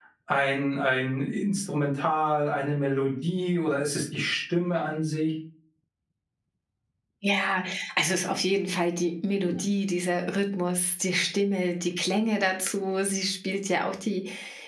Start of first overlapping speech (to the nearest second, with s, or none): none